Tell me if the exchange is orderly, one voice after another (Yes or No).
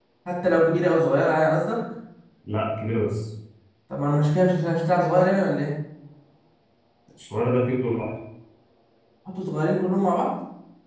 Yes